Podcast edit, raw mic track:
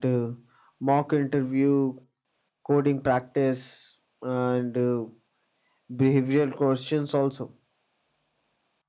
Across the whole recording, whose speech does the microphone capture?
echo only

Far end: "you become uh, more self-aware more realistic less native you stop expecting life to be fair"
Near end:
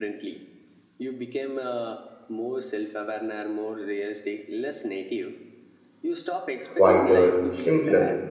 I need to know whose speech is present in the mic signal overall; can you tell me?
both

